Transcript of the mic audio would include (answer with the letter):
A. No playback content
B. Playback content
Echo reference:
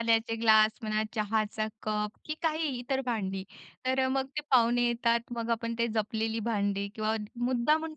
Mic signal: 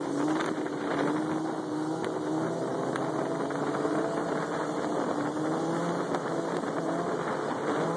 A